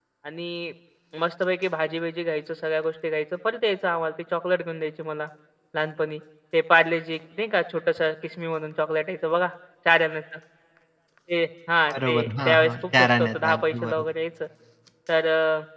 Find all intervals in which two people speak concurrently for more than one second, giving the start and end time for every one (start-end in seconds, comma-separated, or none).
11.9-14.0